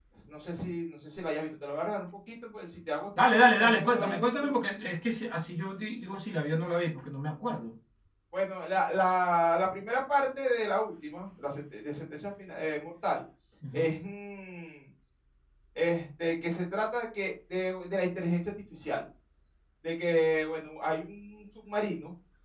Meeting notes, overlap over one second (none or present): present